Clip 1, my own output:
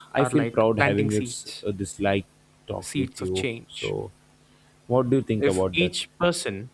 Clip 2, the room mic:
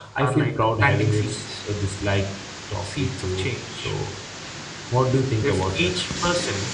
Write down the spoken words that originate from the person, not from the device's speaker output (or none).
none